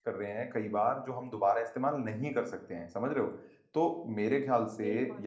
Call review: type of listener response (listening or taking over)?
listening